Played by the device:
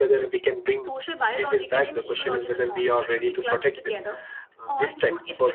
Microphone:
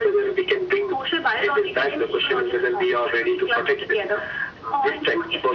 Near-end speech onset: none

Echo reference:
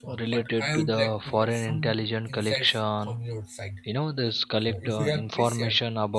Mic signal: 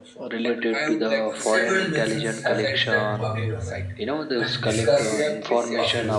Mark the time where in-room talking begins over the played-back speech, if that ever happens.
1.3 s

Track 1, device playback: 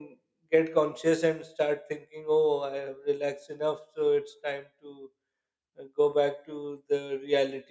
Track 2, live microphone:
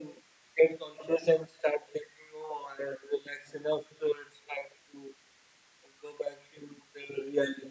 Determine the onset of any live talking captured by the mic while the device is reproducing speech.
none

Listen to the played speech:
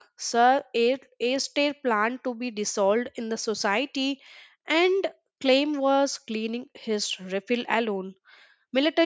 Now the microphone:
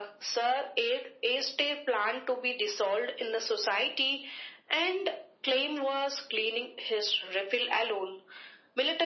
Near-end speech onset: none

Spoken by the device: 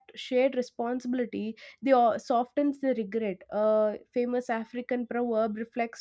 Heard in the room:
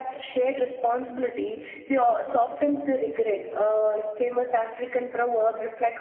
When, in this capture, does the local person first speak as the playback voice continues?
none

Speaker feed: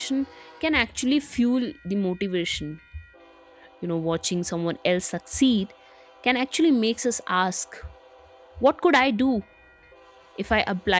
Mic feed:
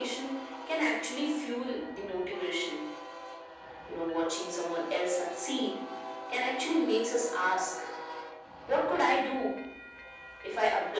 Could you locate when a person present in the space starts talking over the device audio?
none

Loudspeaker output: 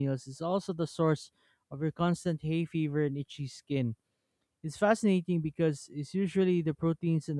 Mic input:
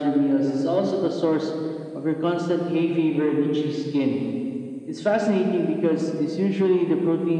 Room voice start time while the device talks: none

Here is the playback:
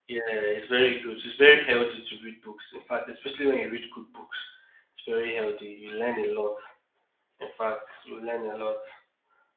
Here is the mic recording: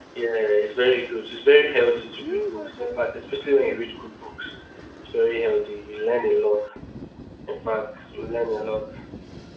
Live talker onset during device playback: 2.2 s

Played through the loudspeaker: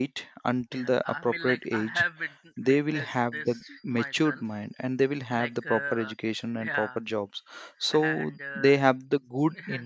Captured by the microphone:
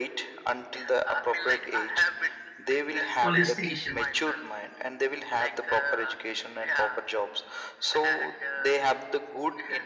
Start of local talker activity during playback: 3.2 s

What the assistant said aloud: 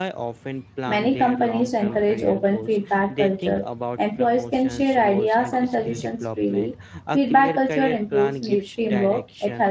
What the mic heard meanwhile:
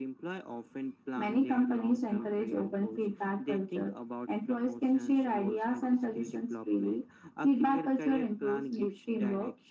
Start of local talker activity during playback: none

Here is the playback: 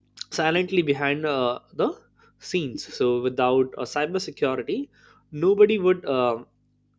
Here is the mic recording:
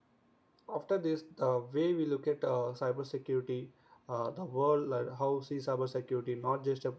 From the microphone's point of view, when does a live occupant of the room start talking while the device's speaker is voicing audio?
0.7 s

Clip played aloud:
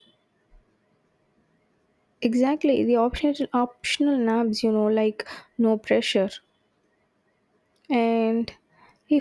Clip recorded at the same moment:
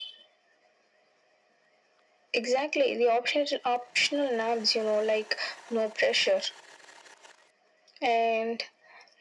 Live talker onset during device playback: none

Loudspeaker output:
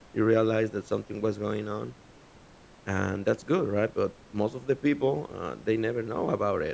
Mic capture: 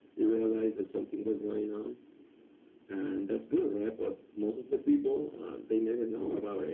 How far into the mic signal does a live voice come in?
none

